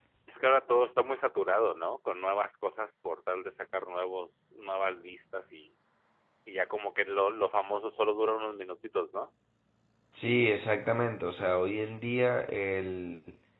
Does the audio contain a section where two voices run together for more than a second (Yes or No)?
No